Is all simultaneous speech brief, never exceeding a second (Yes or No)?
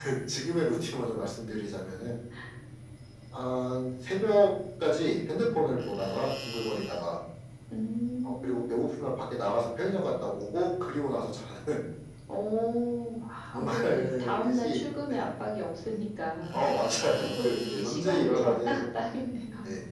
No